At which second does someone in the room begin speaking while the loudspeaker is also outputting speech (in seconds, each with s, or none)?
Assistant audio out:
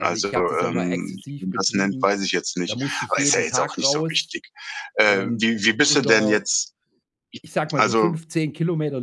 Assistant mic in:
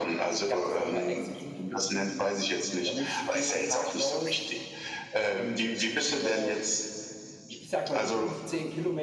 none